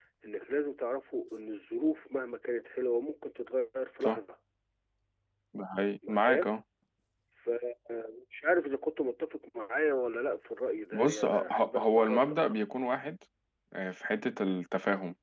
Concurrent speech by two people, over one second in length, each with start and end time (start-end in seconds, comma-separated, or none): 10.9-12.4